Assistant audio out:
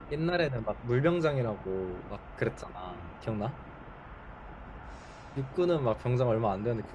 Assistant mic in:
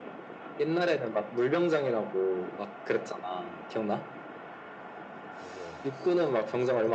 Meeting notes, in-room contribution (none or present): present